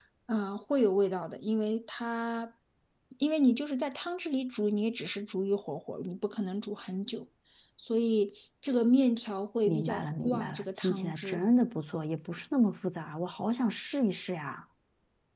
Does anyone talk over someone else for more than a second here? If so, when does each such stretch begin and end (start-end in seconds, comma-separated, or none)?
9.6-11.4